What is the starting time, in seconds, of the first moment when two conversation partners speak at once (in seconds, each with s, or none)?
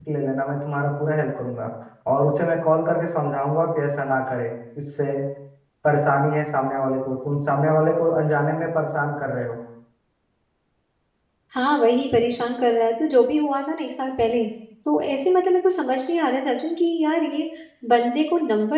none